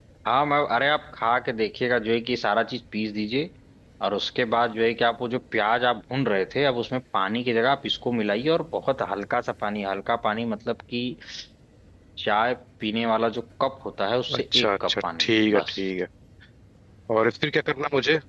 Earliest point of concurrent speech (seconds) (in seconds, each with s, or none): 14.3 s